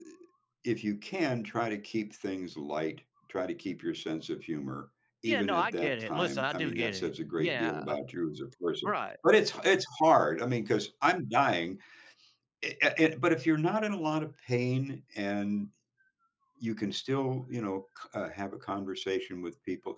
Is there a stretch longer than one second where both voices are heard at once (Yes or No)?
Yes